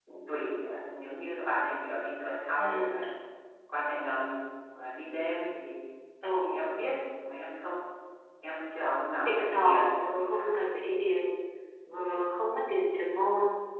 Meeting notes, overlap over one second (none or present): present